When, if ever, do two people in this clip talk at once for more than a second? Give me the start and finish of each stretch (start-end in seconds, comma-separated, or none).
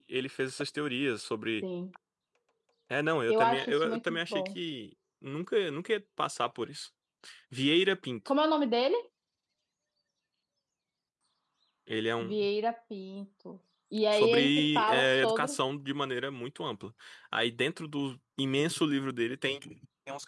3.3-4.6, 14.1-15.6